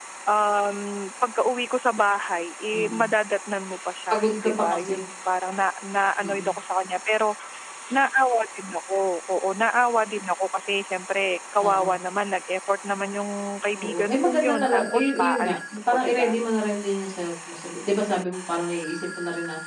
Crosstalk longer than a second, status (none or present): present